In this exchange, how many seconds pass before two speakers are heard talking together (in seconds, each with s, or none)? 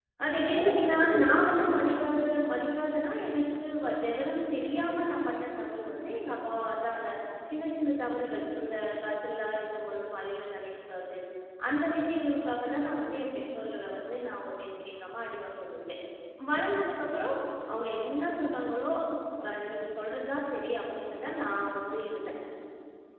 0.6 s